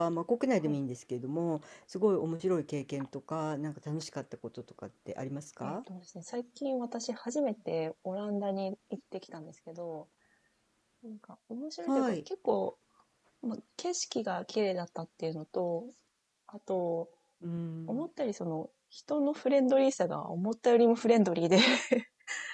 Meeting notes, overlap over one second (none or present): none